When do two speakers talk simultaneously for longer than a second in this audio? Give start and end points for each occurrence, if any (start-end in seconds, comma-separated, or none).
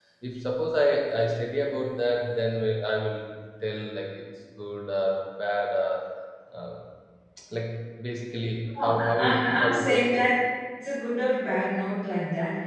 8.8-10.2